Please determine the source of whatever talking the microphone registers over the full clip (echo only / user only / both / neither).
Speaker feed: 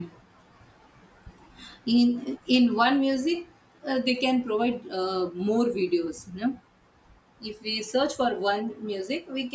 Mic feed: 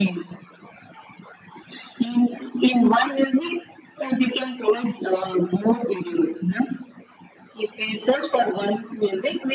echo only